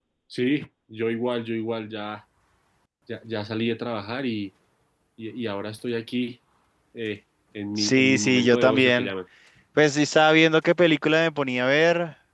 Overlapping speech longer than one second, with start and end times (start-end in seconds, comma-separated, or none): 7.8-9.1